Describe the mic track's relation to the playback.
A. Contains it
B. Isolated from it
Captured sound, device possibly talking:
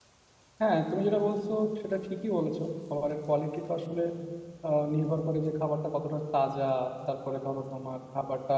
B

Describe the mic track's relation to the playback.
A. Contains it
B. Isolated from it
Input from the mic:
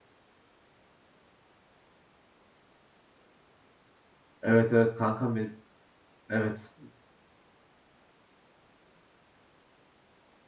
B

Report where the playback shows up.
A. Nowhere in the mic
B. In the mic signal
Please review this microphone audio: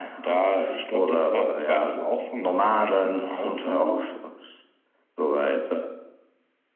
B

